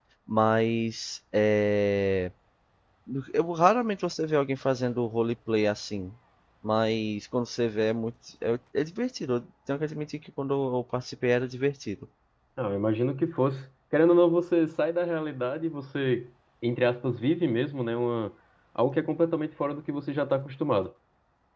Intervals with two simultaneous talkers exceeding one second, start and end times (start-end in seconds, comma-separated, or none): none